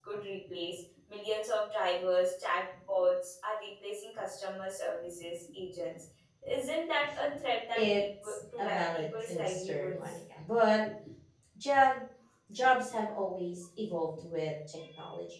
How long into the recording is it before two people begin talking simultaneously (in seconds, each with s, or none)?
7.7 s